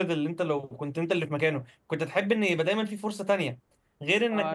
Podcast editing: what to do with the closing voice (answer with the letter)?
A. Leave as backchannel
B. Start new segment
A